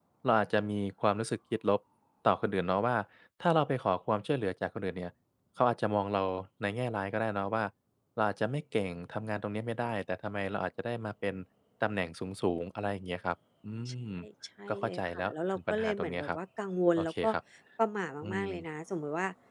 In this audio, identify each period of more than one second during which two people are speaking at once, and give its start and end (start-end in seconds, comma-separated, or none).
14.7-16.4